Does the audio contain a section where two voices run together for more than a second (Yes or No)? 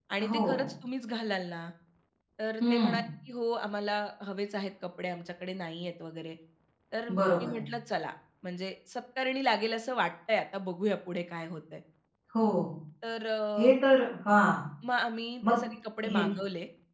No